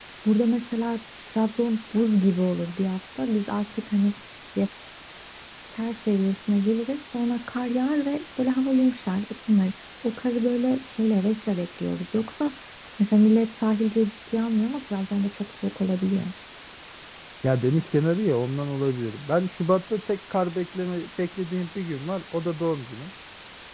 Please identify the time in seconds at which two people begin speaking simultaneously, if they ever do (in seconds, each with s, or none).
none